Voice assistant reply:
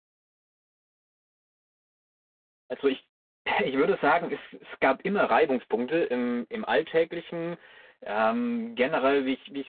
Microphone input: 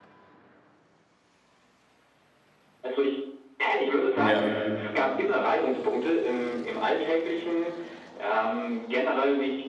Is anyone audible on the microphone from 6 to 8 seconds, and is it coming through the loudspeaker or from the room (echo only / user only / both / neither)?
echo only